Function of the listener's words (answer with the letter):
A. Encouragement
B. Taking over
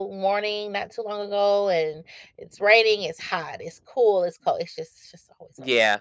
B